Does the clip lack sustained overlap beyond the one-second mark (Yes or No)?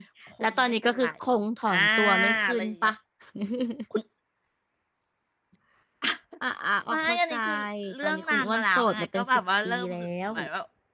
No